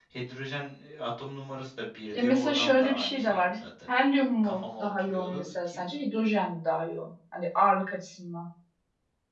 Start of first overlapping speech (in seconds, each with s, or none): 2.2 s